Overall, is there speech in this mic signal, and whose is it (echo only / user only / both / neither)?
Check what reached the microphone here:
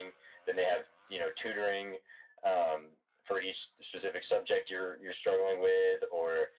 echo only